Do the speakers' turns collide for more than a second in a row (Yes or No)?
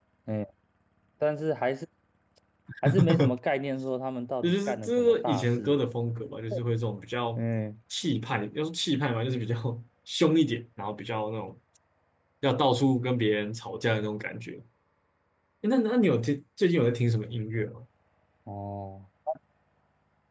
Yes